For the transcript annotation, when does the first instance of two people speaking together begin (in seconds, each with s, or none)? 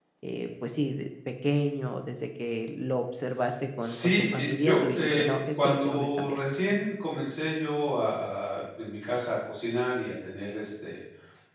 3.8 s